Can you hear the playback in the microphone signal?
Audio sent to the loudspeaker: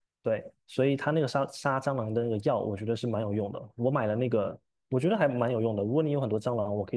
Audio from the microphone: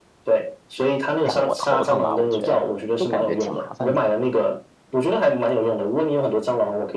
Yes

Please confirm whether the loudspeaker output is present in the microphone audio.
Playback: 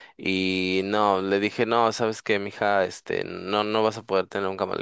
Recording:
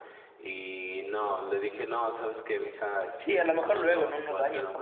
Yes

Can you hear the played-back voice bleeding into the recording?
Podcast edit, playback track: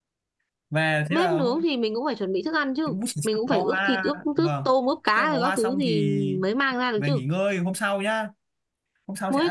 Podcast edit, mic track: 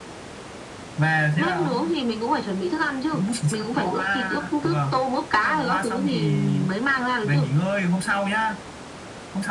Yes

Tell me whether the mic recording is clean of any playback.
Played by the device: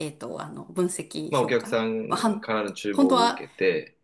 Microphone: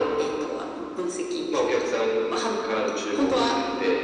No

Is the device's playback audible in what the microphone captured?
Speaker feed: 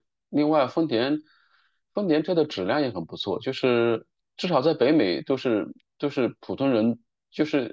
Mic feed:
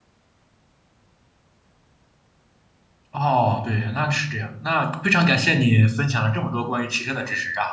No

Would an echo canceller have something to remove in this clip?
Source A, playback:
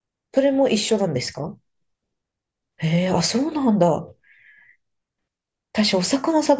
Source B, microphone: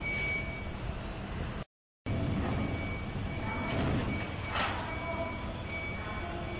No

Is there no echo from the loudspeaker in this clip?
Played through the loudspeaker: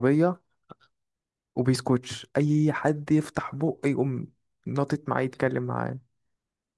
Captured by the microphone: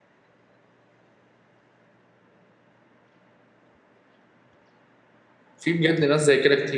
Yes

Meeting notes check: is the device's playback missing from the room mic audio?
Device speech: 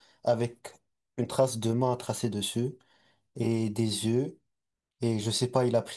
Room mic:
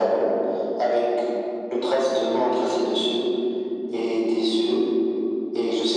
No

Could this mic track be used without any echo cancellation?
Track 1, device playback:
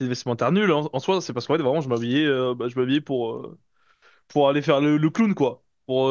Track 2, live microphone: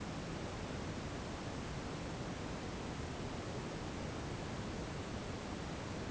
Yes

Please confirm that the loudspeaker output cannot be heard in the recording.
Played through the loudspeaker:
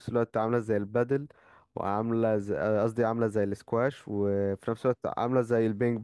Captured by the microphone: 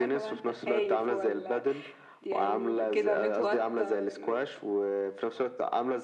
No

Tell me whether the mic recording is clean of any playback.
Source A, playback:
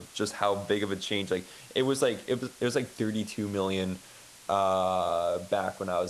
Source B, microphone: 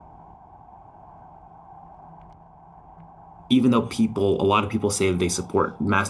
Yes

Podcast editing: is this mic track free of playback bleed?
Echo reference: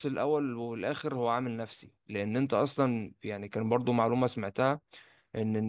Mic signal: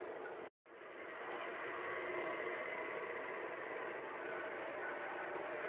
Yes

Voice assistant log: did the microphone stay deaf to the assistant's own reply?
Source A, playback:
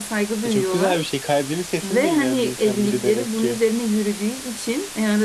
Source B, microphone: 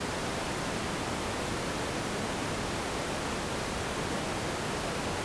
Yes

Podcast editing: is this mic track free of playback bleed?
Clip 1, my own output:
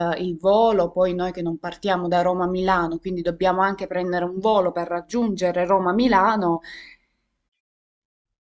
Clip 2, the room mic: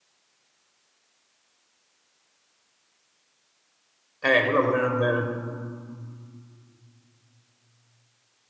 Yes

